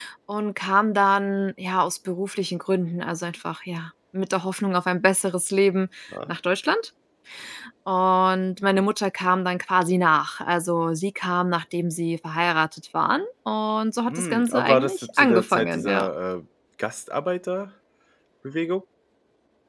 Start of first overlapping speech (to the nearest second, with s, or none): 14 s